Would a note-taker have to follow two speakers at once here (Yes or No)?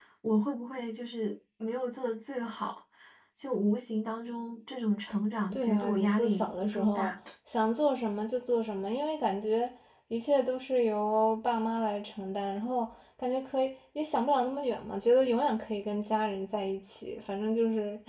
Yes